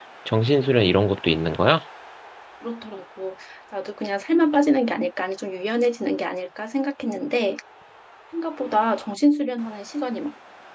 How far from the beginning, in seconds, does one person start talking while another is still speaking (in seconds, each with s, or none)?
none